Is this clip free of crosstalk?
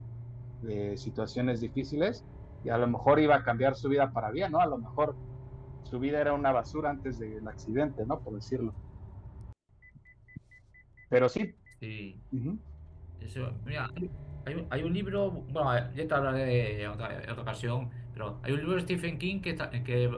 Yes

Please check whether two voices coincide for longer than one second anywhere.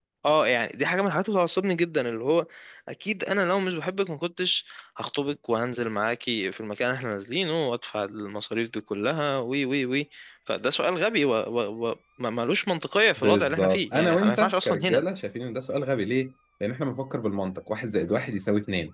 Yes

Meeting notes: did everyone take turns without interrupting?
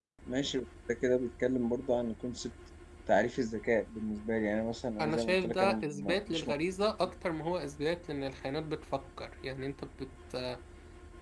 No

